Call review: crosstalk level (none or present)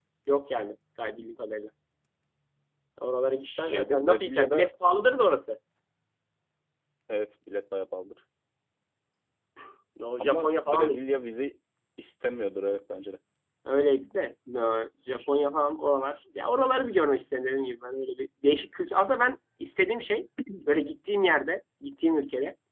present